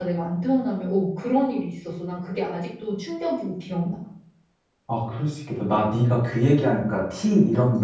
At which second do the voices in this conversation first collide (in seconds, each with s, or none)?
none